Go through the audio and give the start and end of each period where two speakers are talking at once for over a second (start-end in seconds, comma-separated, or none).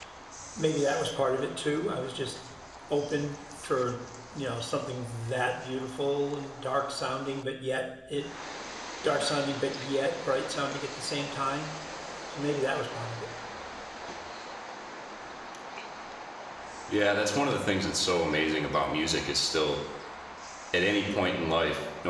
none